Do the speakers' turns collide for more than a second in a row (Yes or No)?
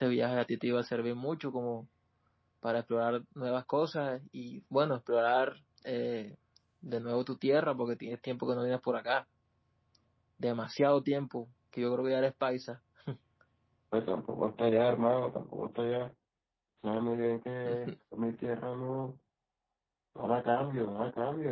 No